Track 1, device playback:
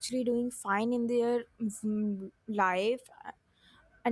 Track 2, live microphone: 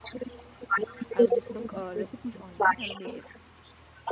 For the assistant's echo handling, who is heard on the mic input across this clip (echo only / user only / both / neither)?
both